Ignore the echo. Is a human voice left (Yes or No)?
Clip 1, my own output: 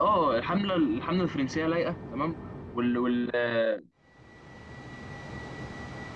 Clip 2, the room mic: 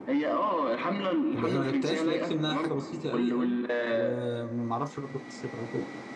Yes